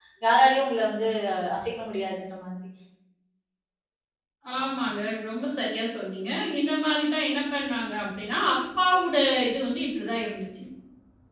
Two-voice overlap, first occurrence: none

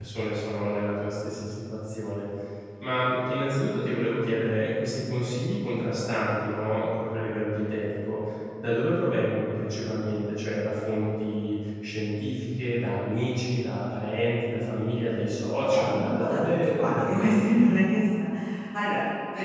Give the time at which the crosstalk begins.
15.7 s

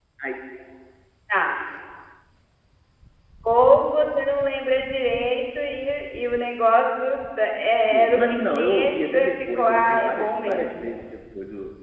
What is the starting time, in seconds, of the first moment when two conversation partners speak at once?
7.9 s

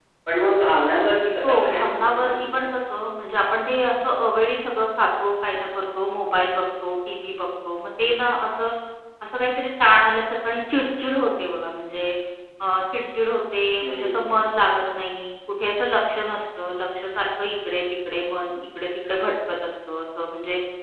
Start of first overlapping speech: 1.4 s

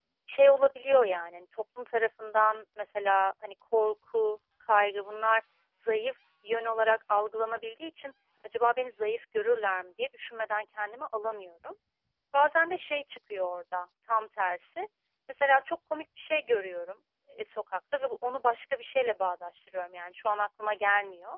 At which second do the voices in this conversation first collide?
none

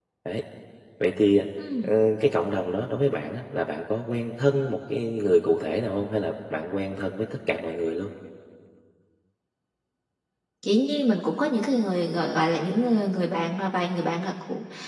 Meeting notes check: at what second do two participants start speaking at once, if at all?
none

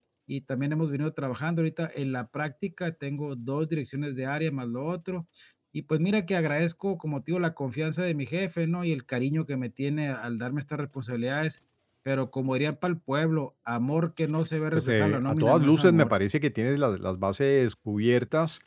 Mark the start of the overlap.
14.7 s

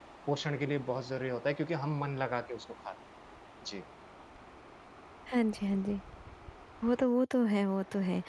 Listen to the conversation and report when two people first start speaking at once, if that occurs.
none

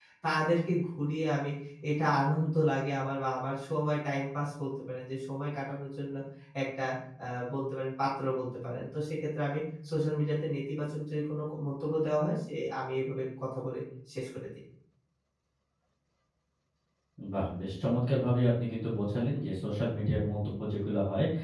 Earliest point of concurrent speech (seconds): none

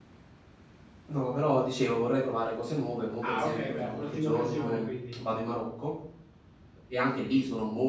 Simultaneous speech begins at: 3.2 s

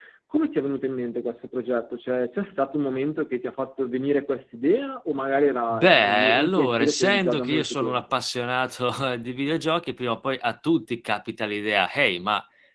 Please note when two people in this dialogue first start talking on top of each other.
5.7 s

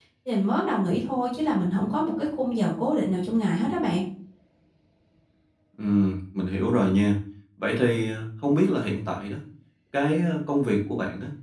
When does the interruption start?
none

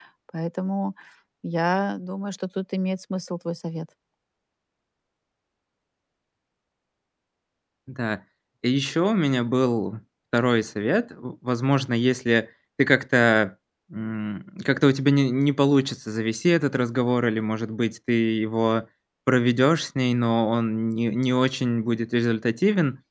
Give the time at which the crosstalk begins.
none

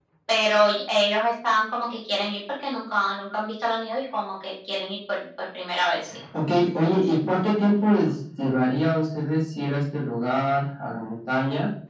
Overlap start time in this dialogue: none

